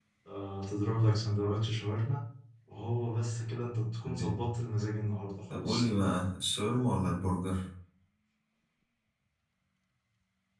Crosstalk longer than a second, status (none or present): none